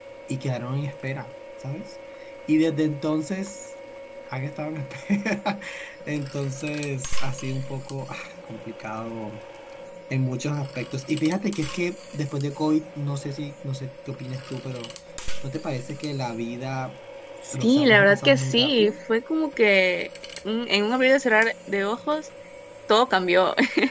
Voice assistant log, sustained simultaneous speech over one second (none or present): present